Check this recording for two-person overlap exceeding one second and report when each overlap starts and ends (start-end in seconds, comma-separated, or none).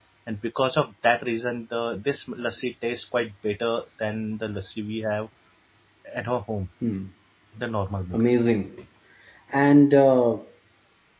none